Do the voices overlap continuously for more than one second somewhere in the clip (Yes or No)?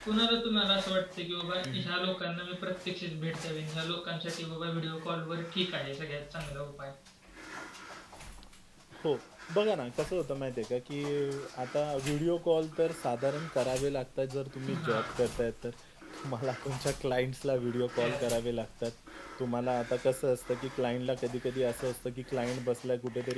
No